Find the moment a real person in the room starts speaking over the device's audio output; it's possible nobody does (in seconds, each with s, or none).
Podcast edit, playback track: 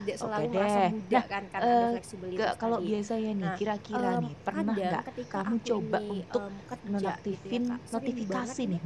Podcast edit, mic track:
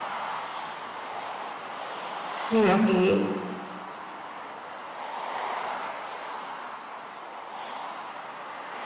2.5 s